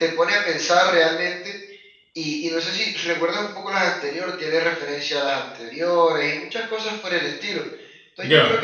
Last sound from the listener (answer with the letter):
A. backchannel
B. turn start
A